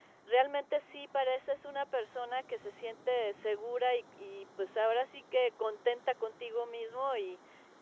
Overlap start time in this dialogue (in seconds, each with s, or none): none